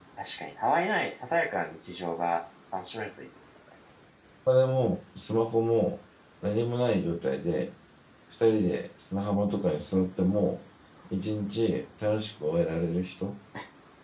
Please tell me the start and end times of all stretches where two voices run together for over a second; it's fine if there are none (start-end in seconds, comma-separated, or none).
none